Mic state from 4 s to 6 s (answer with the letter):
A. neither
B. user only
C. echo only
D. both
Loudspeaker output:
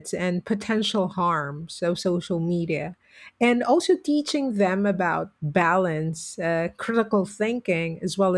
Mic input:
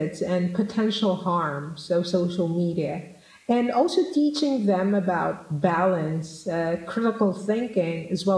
C